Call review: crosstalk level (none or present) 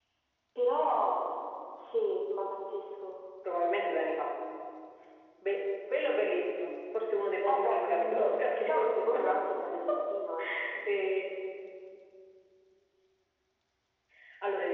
present